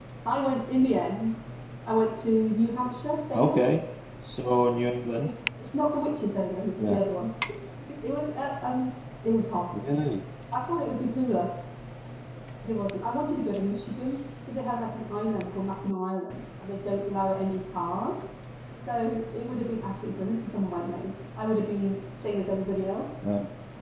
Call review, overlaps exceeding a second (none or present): none